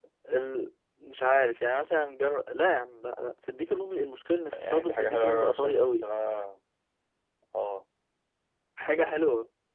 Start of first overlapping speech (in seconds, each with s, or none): 4.5 s